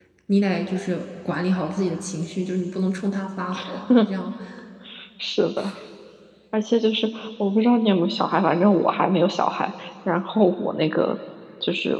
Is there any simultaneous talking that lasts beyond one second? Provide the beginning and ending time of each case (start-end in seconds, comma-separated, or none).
none